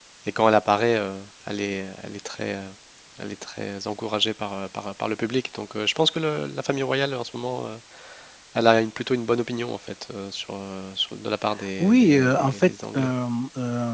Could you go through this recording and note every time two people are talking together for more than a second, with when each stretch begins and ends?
11.8-13.1

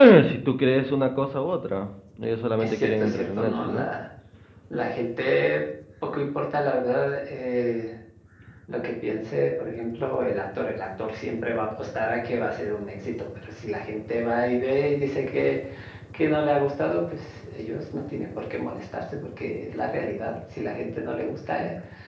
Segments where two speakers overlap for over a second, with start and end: 2.6-3.9

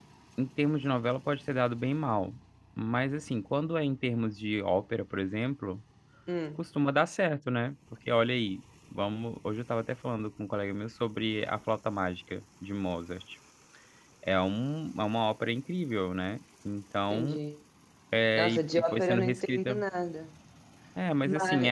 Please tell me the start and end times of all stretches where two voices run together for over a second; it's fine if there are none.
18.4-19.8

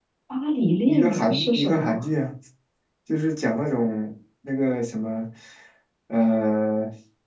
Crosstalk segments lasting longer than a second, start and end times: 0.8-2.0

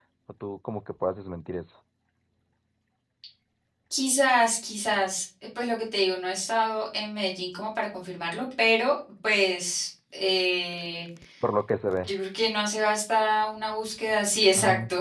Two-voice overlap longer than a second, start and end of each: none

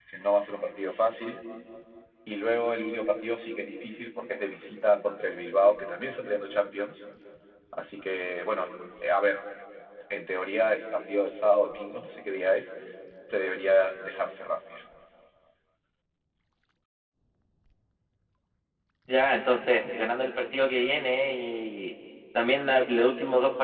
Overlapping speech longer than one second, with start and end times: none

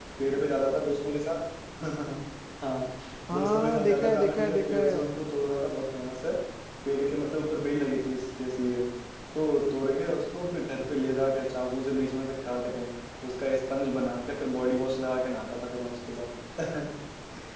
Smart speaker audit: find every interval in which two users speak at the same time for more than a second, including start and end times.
3.3-5.1

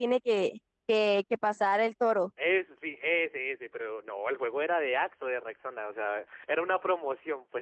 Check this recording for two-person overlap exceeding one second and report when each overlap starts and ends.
none

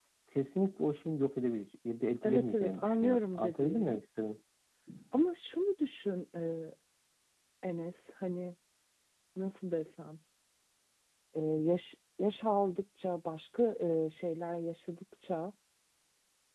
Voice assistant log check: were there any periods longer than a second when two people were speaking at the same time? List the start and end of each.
2.2-4.0

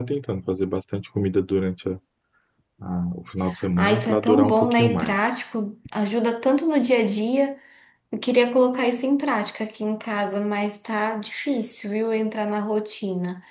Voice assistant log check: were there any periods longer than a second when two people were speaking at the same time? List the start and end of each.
3.8-5.3

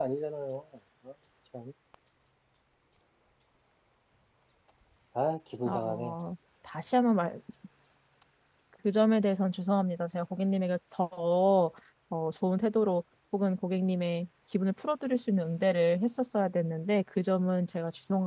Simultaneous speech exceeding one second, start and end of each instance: none

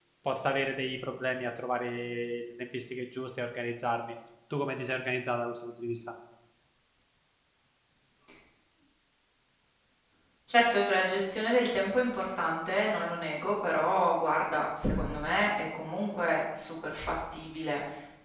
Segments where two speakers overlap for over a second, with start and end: none

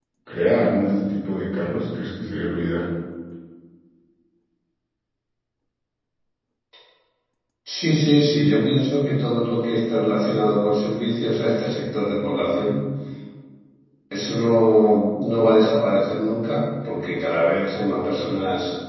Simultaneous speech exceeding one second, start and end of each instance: none

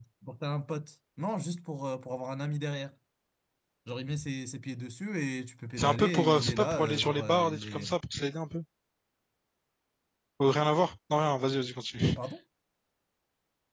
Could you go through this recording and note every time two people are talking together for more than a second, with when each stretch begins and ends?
5.8-7.9

